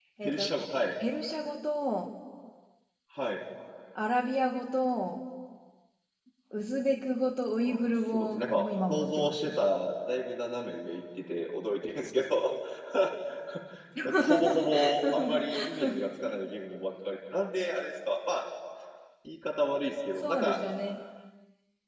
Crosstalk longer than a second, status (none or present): present